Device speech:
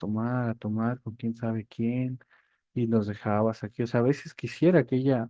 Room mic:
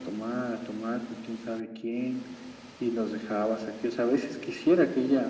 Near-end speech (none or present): none